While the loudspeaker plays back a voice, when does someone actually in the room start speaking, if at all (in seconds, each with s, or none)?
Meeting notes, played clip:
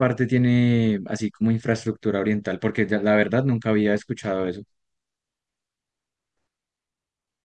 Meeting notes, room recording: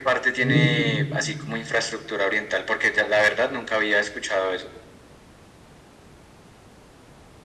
0.4 s